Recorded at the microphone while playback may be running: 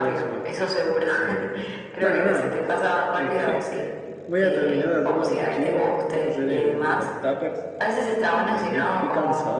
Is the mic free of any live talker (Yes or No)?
No